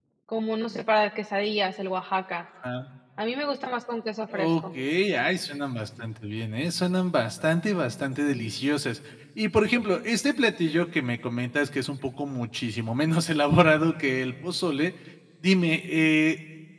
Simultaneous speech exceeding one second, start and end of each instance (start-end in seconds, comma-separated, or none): none